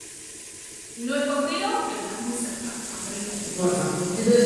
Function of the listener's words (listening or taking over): taking over